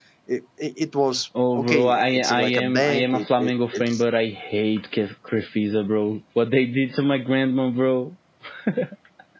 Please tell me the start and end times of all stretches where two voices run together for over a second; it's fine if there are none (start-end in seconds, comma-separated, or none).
1.6-4.0